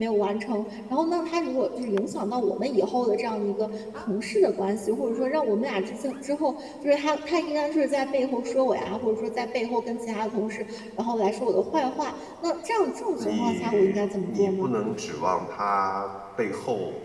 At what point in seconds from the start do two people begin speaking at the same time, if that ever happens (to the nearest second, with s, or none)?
13 s